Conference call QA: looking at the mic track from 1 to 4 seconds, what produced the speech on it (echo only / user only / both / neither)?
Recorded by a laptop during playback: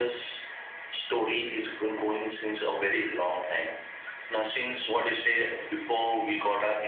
echo only